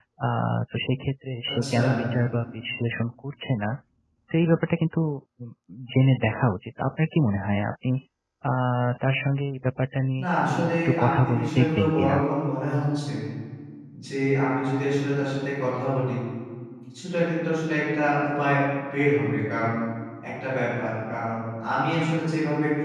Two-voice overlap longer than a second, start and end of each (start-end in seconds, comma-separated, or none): 10.2-12.2